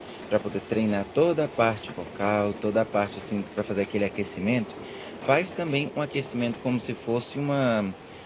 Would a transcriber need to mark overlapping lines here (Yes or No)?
No